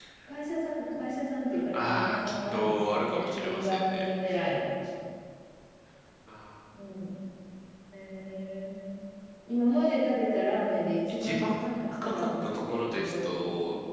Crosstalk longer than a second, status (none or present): present